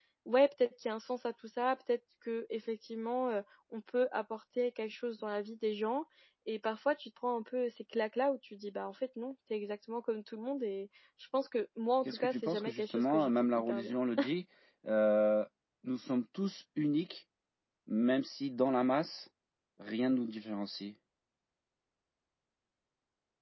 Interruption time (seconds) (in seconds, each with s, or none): 12.1 s